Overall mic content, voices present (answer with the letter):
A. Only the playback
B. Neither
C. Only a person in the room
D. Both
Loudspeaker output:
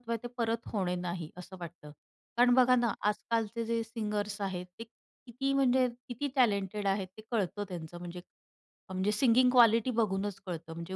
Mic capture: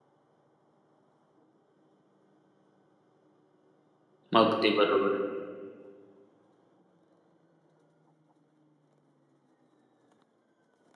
C